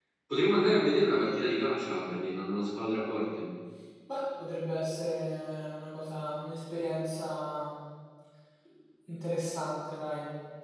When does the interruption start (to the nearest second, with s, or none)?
none